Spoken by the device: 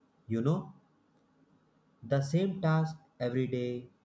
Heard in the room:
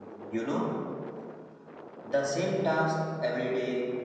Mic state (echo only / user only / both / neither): echo only